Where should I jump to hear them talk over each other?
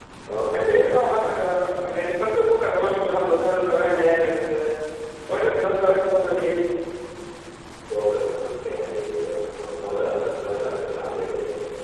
none

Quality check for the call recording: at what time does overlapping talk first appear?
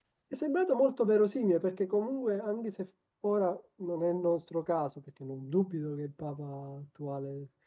none

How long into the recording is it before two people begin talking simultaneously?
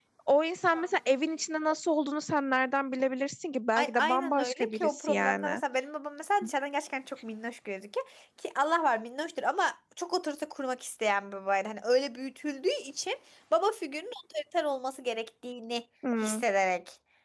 3.8 s

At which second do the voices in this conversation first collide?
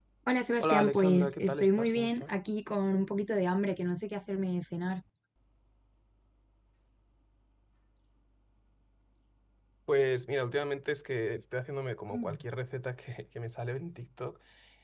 0.6 s

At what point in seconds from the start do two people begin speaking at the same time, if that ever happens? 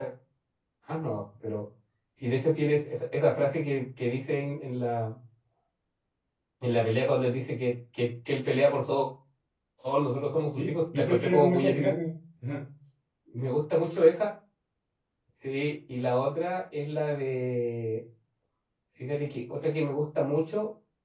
10.6 s

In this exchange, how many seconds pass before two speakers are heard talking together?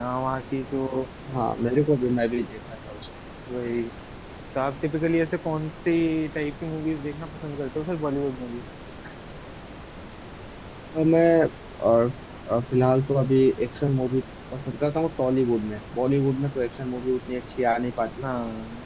none

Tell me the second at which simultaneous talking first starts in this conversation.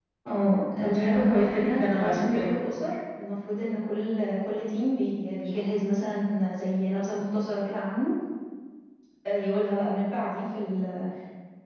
0.8 s

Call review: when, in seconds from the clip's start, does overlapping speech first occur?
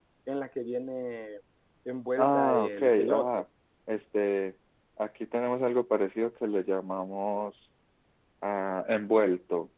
2.2 s

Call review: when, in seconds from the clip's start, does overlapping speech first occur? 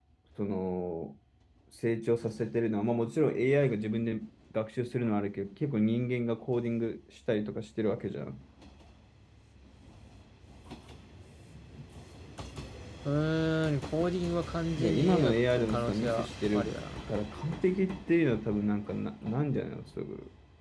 14.8 s

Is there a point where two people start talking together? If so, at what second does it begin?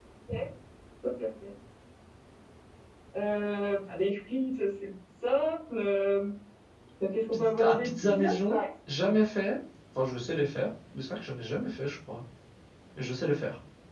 7.3 s

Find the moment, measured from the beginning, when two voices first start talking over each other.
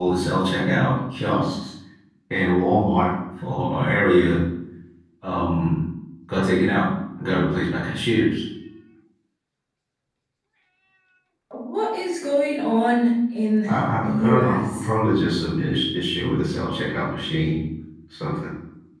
13.7 s

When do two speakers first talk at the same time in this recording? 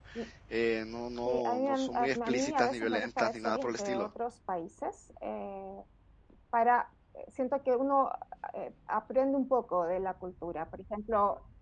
1.2 s

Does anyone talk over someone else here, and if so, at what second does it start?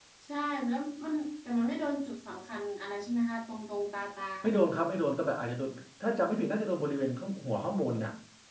none

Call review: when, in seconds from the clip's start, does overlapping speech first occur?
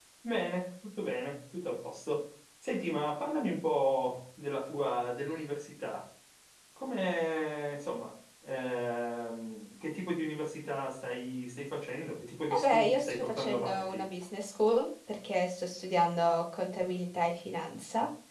12.5 s

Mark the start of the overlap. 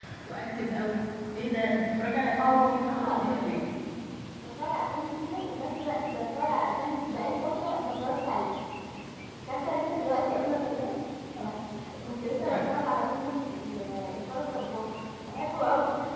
2.4 s

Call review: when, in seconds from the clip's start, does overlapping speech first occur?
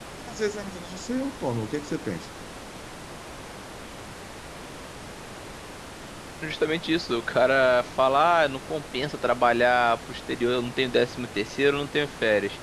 none

